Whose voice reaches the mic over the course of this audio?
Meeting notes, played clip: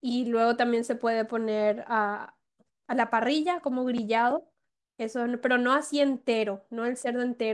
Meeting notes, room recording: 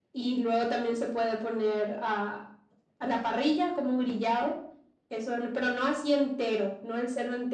echo only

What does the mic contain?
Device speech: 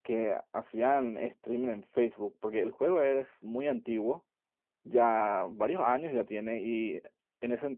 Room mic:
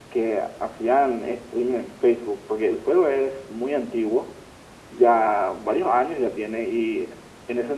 echo only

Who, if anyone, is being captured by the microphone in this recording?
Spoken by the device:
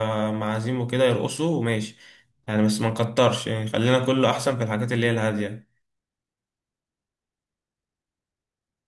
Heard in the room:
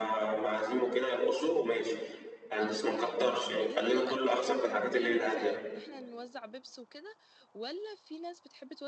both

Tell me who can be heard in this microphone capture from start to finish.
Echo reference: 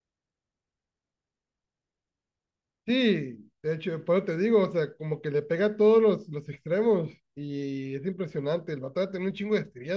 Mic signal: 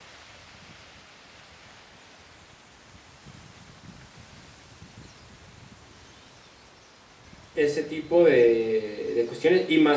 user only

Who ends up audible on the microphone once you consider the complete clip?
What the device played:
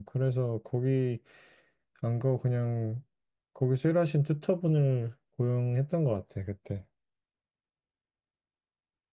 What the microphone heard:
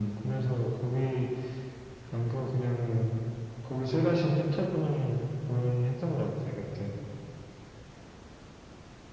echo only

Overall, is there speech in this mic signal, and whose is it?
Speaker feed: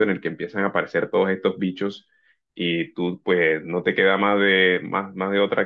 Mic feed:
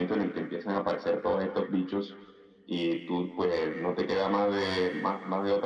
echo only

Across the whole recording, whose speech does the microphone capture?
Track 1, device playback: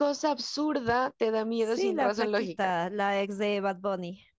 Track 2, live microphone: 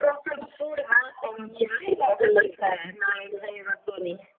echo only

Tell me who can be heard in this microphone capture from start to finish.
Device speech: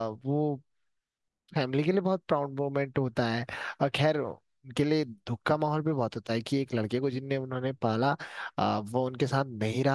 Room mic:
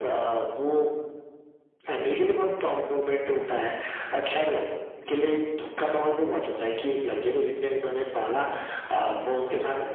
echo only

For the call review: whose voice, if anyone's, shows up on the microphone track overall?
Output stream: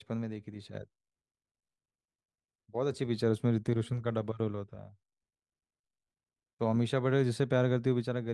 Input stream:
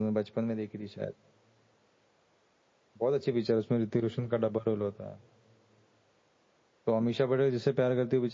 echo only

